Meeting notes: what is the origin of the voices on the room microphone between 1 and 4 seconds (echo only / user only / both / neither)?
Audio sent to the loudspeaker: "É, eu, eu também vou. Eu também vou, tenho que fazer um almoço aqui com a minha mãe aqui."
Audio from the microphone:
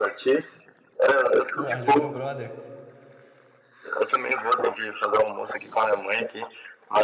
both